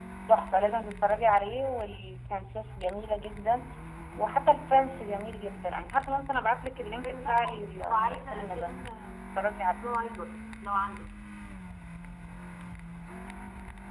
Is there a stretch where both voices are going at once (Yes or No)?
Yes